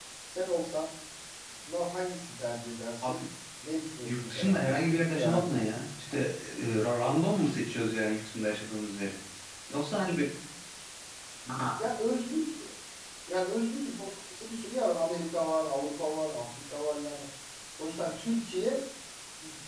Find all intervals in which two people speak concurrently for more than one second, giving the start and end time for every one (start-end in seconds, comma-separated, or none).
4.0-5.6